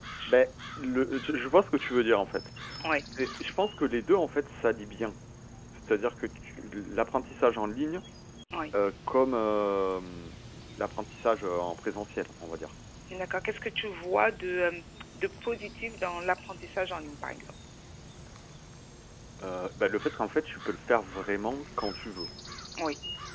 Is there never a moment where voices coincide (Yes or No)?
Yes